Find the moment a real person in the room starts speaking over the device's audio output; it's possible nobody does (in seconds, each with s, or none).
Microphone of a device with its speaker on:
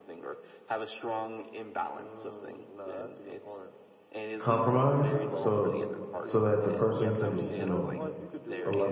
4.4 s